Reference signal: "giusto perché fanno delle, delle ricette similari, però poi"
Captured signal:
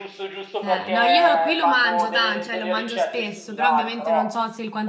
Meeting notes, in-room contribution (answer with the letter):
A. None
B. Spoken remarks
B